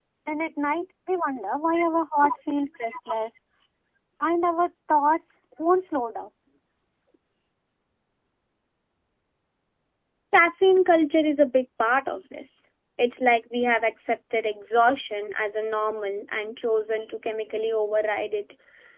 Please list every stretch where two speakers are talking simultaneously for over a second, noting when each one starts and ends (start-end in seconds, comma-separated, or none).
none